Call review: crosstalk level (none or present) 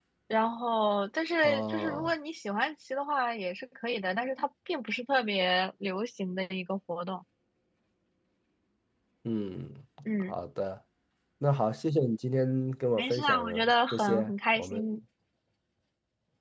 present